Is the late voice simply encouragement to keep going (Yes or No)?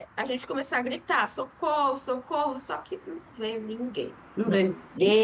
Yes